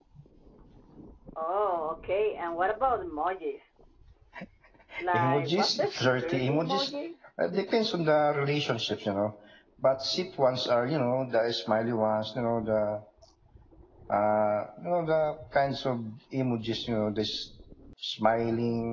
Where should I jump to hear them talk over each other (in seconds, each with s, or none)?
5.2 s